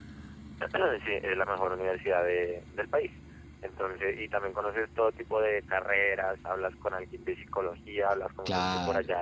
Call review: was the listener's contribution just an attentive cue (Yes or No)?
Yes